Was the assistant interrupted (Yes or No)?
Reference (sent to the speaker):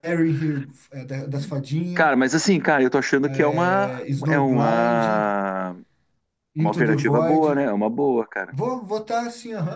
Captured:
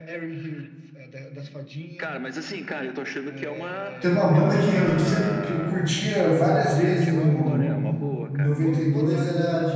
Yes